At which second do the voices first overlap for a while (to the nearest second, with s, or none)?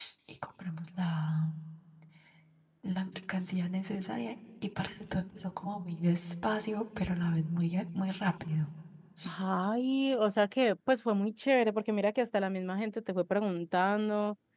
none